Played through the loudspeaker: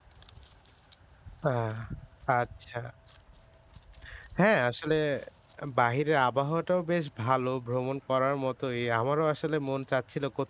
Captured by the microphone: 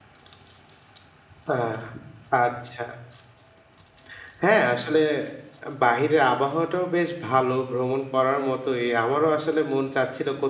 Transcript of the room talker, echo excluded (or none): none